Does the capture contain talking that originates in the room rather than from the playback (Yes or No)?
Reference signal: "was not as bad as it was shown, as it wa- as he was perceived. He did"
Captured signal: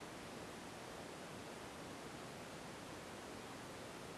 No